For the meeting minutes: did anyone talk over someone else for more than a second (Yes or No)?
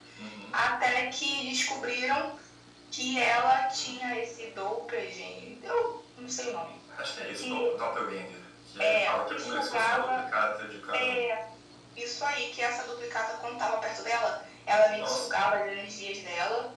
Yes